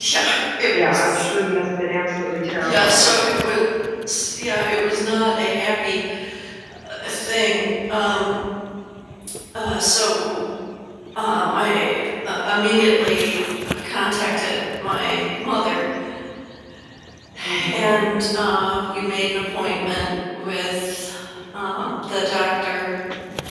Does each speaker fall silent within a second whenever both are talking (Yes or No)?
Yes